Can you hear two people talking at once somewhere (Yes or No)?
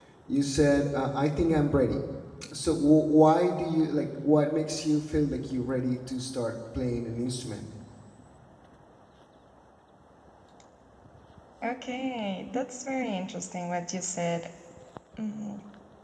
No